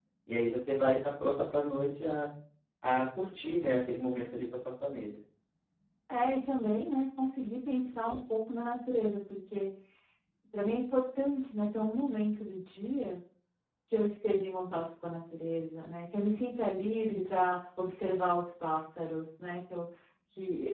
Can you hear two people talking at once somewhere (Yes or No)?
No